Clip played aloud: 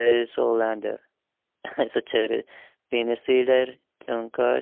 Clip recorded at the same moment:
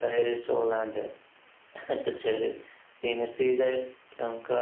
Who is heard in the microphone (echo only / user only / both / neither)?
echo only